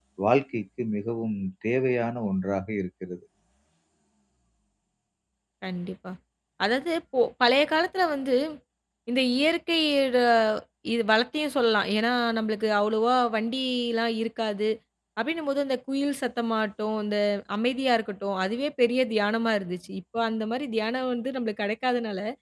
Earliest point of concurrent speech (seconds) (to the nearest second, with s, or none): none